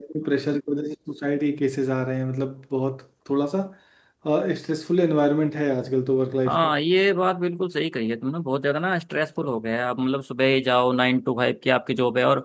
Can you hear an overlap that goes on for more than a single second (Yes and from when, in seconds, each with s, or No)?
No